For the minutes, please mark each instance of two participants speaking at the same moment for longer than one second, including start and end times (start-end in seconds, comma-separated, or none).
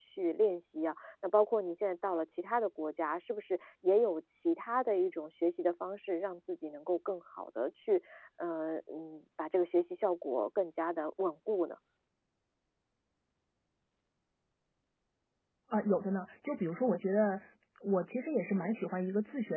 none